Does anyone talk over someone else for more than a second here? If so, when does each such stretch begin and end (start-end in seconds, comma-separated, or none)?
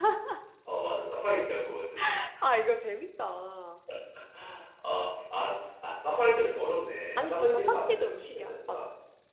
7.2-8.8